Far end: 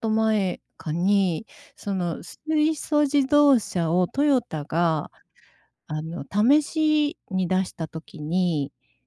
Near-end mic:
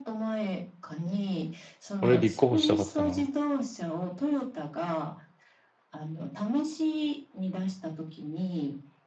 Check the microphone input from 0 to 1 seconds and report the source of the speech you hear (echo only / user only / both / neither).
echo only